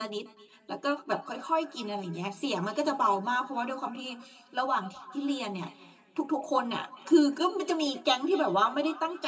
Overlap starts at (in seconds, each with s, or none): none